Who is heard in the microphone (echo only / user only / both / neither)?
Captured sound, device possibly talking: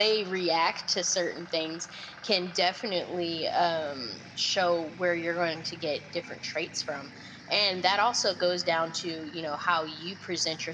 echo only